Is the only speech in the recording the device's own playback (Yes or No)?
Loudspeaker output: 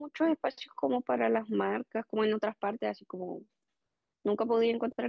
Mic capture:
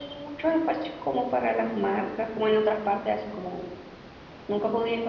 Yes